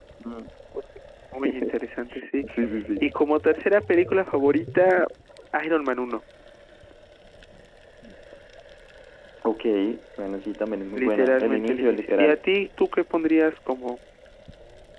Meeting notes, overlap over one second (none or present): present